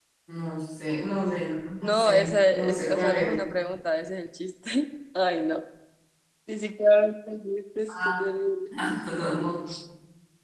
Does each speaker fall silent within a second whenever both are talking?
No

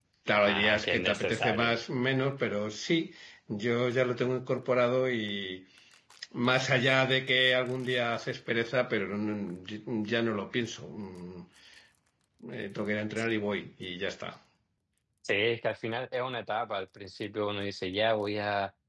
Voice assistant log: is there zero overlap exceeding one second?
No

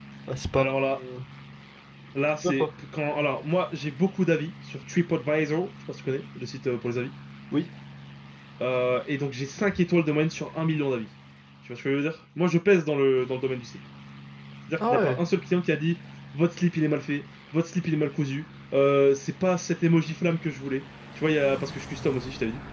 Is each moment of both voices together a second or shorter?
Yes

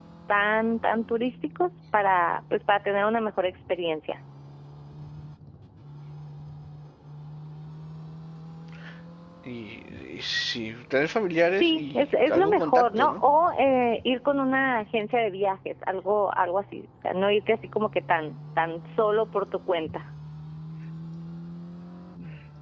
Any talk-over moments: Yes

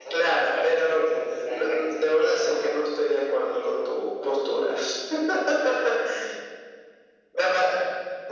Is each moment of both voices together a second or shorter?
No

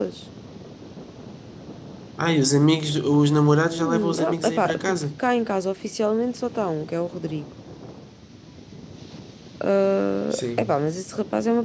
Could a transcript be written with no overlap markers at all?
No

